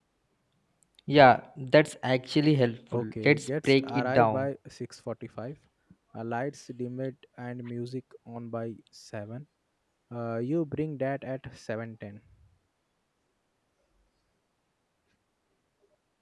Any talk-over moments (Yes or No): Yes